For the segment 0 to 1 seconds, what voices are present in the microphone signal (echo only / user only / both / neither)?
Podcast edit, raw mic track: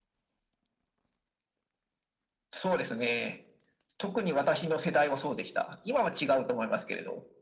neither